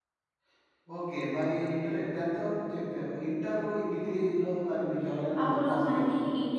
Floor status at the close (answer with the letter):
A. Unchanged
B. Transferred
B